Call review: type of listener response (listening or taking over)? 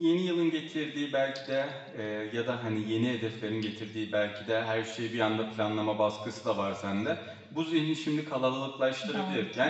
listening